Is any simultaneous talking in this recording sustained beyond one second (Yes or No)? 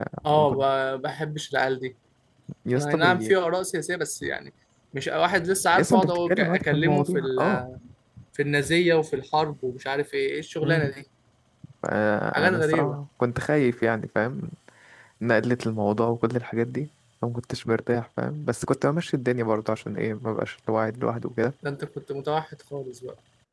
Yes